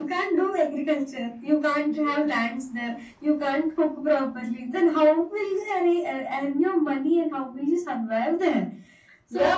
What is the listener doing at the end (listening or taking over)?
taking over